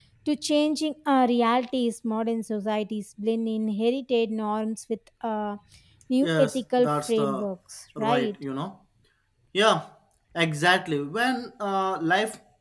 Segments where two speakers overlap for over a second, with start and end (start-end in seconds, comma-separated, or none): 6.2-7.5